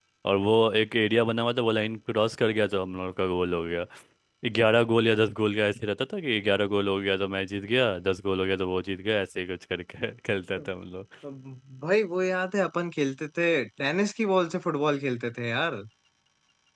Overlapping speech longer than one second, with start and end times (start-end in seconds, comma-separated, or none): none